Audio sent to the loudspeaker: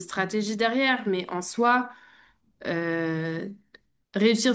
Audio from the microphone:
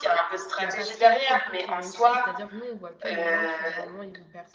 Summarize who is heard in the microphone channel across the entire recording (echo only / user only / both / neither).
both